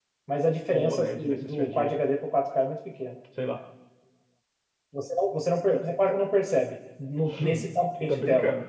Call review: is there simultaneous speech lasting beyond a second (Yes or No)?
Yes